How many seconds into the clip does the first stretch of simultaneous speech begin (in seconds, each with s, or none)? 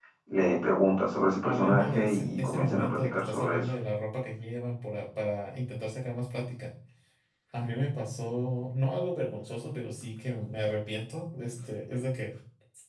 1.4 s